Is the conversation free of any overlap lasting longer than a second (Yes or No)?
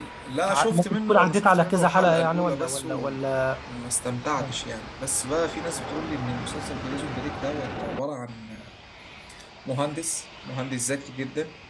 No